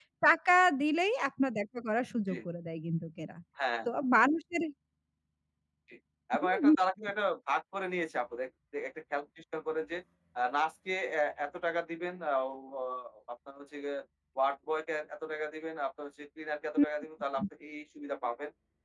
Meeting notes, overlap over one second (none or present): none